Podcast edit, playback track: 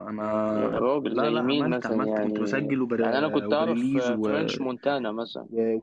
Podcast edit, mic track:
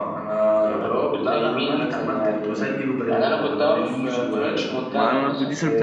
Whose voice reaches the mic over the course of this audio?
both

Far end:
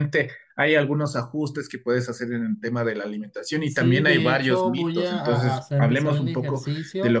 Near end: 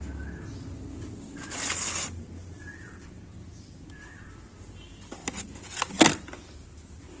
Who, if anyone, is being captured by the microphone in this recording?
neither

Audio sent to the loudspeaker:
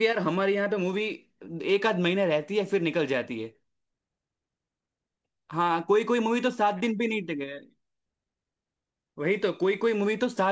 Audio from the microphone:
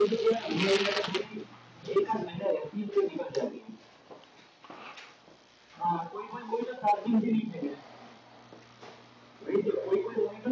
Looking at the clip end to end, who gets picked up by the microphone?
echo only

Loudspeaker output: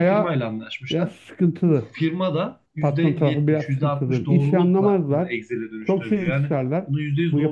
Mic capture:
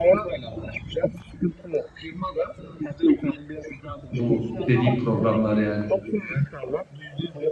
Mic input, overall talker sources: both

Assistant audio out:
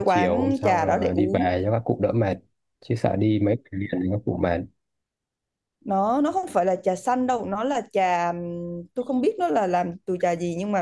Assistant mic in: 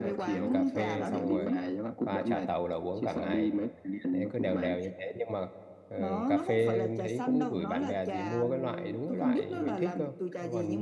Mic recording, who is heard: both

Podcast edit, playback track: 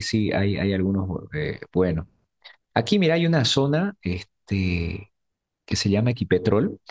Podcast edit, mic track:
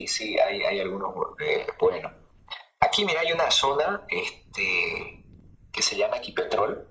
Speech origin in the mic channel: echo only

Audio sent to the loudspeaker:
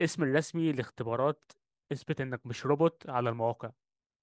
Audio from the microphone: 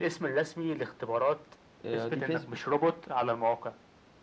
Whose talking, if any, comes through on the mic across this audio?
both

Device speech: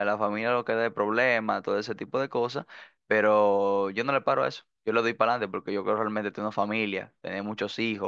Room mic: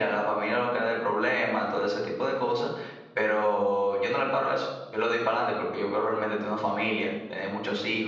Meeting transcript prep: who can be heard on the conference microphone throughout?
echo only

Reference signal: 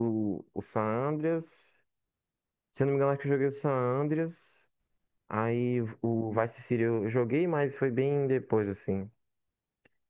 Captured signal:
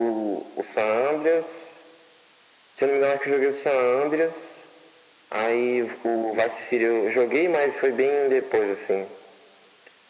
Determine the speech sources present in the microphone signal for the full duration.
echo only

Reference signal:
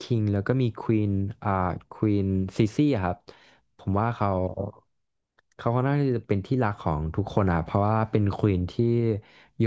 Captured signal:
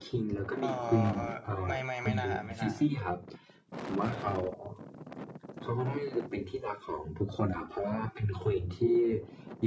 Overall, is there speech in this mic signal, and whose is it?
both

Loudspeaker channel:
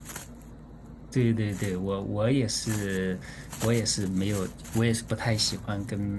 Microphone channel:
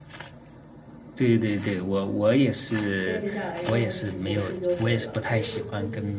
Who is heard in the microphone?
both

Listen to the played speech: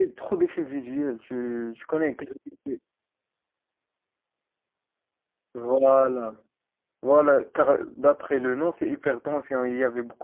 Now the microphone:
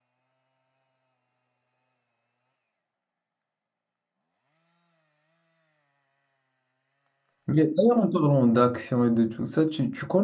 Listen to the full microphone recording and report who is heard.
user only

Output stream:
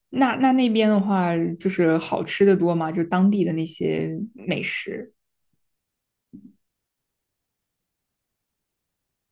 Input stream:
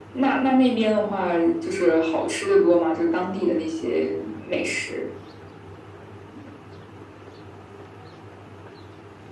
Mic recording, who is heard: echo only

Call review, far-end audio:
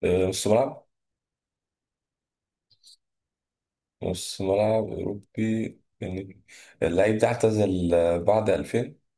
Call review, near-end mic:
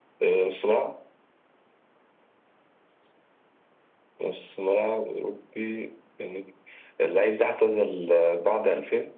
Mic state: echo only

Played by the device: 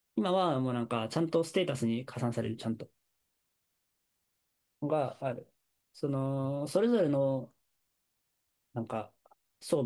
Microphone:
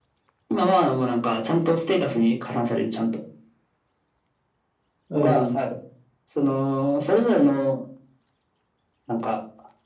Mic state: both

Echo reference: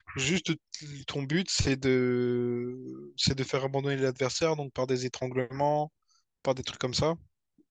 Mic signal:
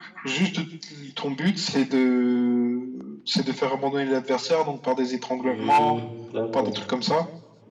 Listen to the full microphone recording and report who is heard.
both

